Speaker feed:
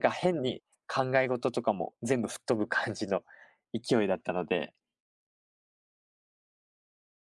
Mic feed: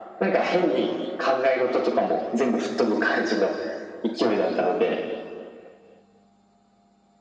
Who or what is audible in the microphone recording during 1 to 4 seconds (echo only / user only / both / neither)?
echo only